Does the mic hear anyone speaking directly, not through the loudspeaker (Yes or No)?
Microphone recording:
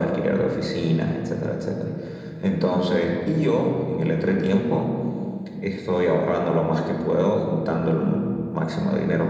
No